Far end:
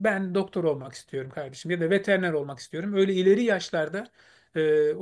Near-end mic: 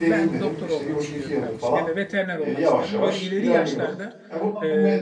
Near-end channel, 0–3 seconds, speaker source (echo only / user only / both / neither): both